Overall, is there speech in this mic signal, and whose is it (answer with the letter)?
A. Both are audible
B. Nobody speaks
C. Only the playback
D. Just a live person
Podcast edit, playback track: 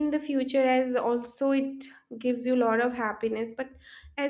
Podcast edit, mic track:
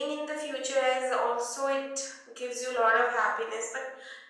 C